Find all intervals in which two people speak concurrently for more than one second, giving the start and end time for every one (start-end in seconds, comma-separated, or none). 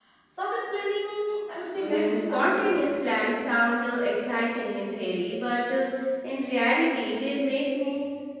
1.7-3.0